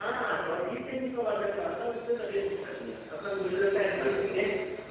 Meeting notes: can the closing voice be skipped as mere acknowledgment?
Yes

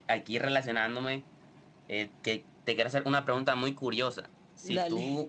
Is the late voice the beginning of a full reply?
No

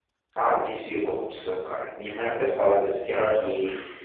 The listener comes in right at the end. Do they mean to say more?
No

